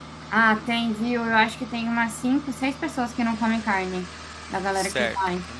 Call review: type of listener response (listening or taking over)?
taking over